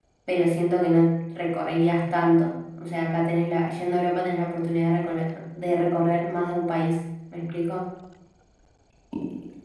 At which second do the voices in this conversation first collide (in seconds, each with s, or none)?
none